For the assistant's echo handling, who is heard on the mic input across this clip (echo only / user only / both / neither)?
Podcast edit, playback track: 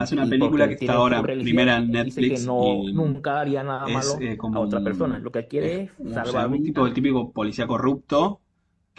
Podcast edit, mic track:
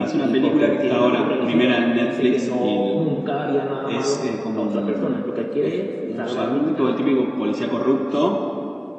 echo only